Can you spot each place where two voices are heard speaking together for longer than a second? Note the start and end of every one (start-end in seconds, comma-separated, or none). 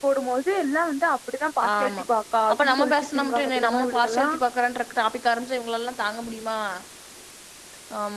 2.5-4.3